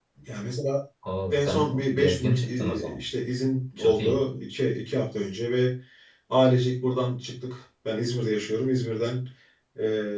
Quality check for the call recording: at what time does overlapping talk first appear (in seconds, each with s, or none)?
1.3 s